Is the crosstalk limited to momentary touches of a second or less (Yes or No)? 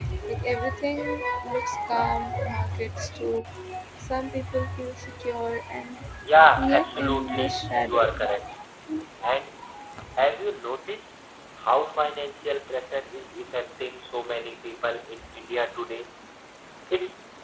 No